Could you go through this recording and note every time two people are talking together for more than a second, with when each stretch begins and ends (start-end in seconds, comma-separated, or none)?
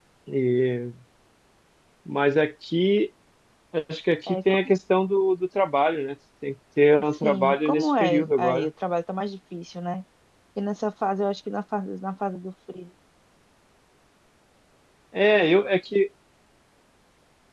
7.2-8.7